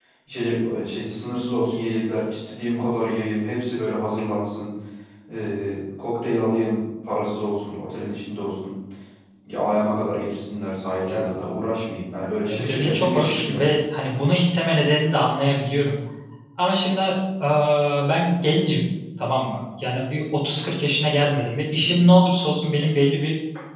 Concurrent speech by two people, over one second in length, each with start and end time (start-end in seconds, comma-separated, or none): 12.5-13.7